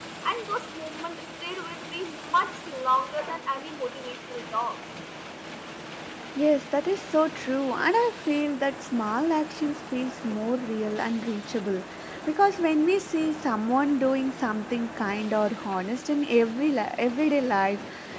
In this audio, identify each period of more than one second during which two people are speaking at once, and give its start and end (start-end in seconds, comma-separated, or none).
none